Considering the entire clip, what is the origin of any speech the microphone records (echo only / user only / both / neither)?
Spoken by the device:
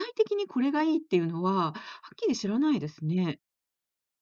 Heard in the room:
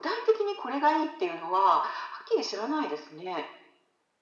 echo only